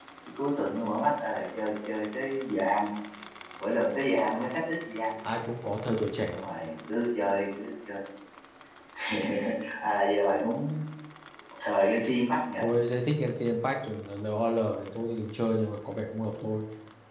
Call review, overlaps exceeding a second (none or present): none